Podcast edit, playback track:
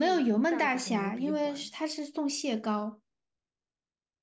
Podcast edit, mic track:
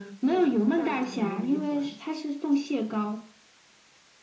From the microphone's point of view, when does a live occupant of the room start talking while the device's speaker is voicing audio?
none

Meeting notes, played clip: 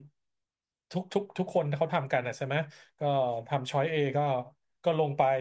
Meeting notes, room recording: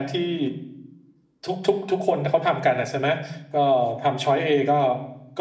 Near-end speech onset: none

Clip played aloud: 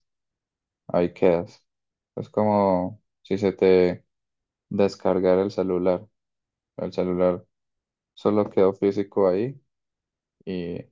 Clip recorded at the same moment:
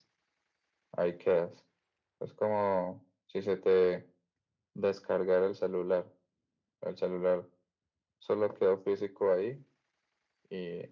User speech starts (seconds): none

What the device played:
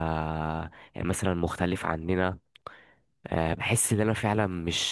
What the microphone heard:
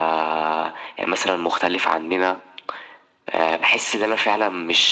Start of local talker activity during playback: none

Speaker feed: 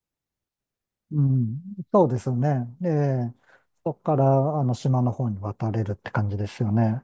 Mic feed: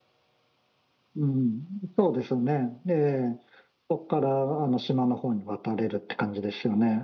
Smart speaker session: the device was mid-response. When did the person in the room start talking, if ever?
none

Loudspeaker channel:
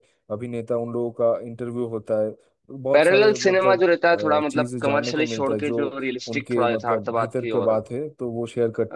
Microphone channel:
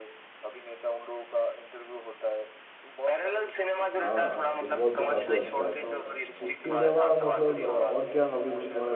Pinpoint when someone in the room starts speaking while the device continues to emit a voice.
4.0 s

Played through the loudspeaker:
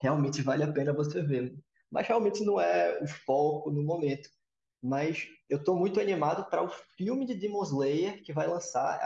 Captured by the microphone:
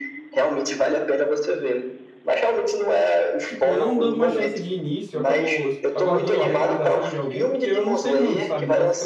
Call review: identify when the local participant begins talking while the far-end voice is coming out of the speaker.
3.4 s

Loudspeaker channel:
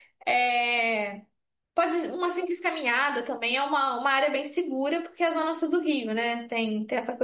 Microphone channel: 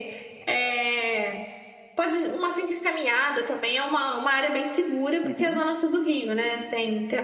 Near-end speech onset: 5.2 s

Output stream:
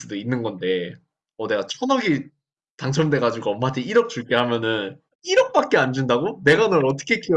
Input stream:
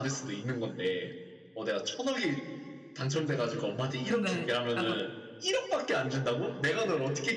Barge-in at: 4.0 s

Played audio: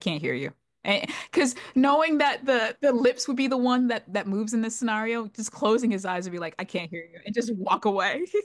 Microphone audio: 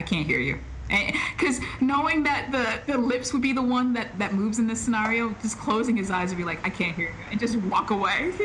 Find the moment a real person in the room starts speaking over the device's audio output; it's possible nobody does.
none

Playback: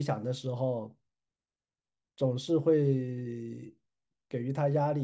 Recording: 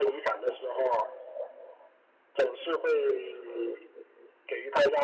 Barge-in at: none

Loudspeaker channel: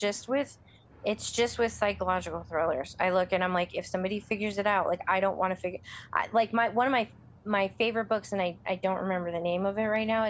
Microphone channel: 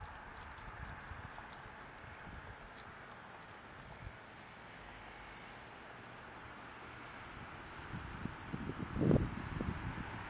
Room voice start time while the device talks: none

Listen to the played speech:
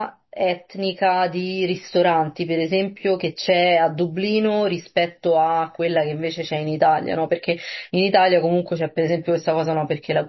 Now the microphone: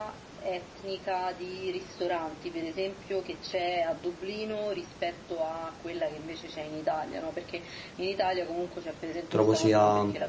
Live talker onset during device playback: 9.3 s

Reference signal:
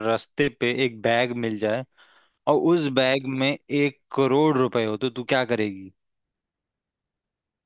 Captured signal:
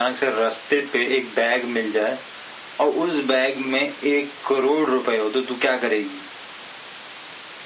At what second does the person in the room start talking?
none

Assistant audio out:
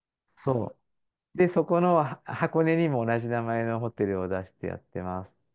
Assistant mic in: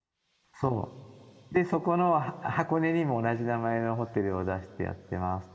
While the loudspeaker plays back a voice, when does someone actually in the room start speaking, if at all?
none

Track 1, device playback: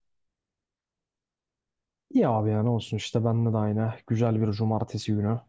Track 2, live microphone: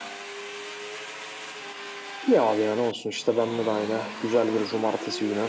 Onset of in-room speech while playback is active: none

